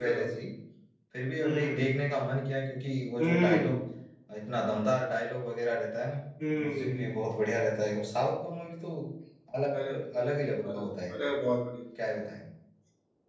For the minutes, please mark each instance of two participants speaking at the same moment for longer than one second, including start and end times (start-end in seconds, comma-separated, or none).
none